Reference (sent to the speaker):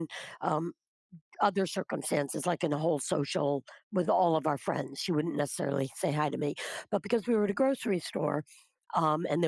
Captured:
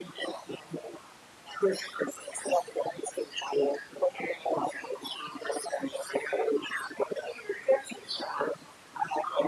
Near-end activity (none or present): none